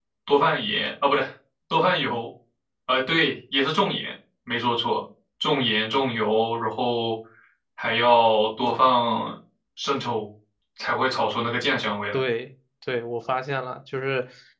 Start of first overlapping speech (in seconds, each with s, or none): none